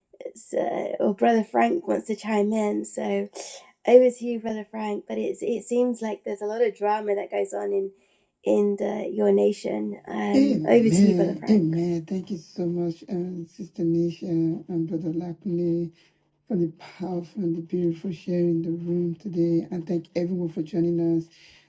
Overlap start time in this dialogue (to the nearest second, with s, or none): 10 s